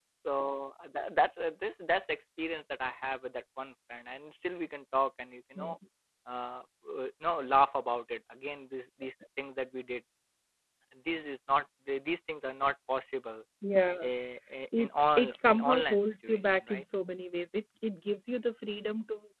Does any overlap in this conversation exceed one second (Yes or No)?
Yes